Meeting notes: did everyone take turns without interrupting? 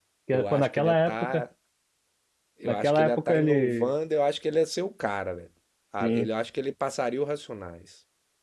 No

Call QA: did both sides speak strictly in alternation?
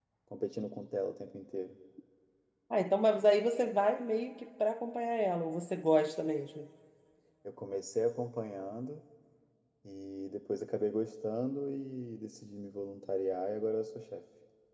Yes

